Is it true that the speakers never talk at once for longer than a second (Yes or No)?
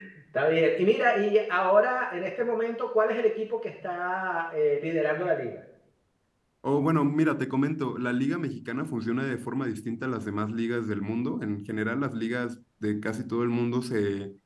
Yes